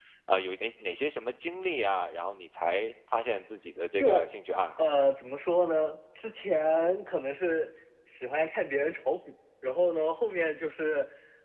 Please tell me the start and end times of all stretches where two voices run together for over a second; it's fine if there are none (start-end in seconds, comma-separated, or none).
none